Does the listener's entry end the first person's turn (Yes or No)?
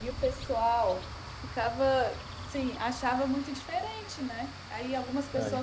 No